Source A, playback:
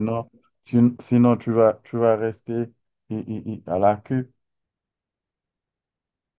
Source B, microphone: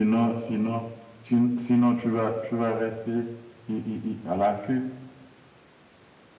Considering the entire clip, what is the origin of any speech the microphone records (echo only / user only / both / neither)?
echo only